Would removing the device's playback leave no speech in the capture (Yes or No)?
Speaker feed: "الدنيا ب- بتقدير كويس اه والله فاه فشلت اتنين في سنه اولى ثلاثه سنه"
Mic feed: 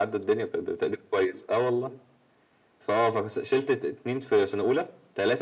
Yes